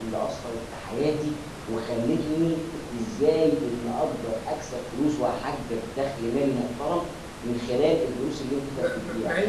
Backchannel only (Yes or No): No